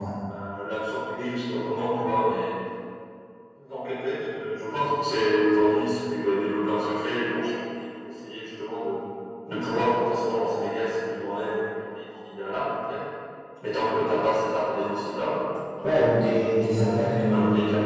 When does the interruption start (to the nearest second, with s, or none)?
16 s